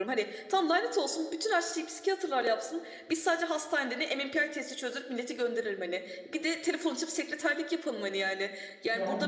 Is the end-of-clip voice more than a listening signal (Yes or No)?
No